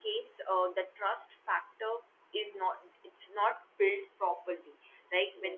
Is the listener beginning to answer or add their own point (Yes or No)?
No